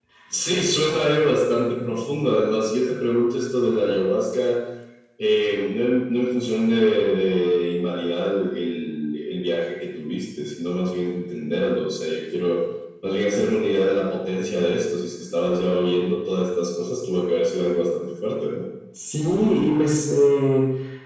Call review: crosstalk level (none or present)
none